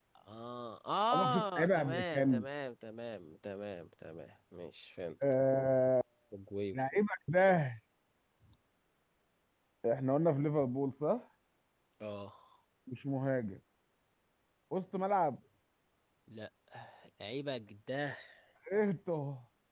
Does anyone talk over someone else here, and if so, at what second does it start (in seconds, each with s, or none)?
1.1 s